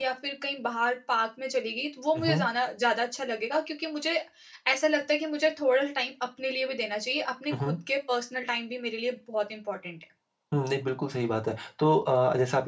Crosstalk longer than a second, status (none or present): none